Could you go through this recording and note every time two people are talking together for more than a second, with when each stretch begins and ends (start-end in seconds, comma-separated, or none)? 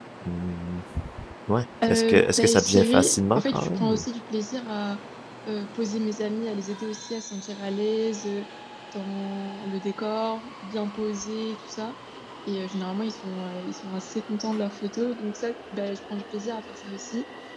1.9-4.0